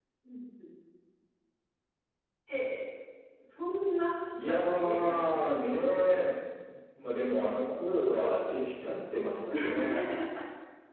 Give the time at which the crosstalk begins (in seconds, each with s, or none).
4.5 s